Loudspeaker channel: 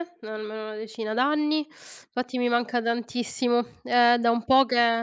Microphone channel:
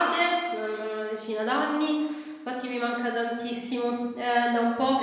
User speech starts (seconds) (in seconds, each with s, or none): none